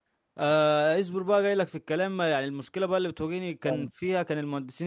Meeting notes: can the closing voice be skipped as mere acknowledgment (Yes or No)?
Yes